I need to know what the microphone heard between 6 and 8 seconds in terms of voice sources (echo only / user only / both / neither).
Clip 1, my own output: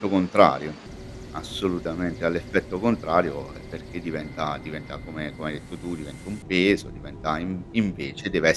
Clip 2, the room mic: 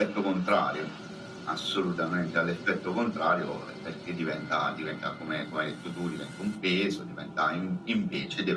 echo only